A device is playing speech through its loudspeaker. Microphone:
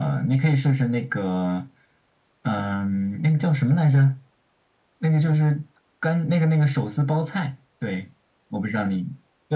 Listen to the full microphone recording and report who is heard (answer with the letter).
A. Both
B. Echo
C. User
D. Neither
B